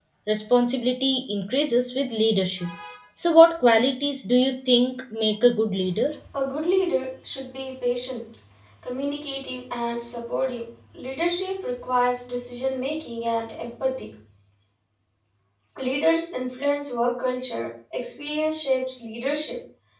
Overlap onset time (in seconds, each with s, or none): none